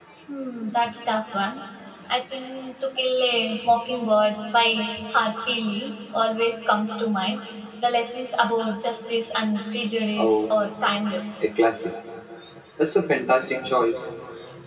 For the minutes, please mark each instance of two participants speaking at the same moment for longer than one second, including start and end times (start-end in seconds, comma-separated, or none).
none